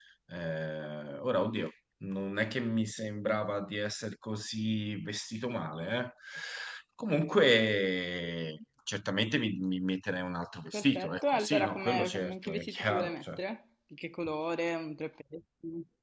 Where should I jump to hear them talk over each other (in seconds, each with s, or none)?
10.7 s